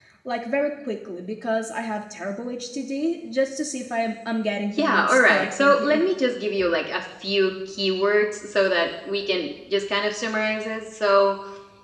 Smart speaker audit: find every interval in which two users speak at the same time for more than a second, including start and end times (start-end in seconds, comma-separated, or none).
4.8-6.0